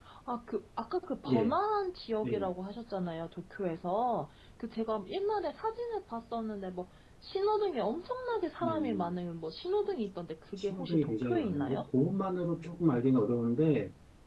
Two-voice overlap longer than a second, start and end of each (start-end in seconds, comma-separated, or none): 10.6-11.9